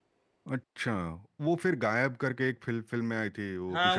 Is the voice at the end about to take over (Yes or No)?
Yes